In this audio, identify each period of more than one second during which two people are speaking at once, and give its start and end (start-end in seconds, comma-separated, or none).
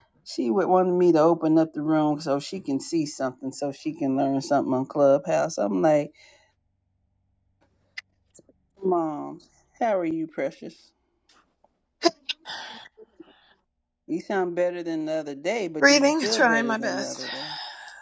15.8-17.3